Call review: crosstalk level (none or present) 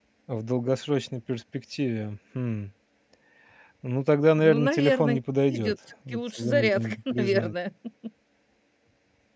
present